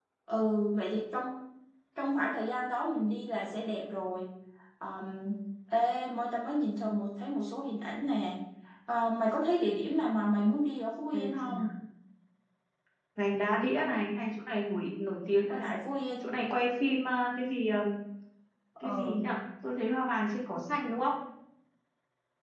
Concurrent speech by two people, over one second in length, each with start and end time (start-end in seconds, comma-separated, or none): none